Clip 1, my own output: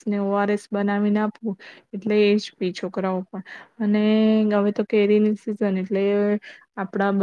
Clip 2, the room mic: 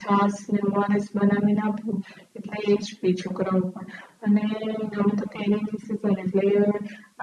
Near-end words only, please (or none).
none